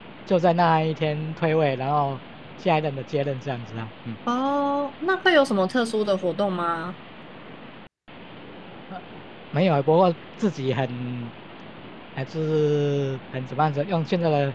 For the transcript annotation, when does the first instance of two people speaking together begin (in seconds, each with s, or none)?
none